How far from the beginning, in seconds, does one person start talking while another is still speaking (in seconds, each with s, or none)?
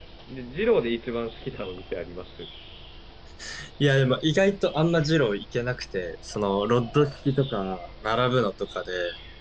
none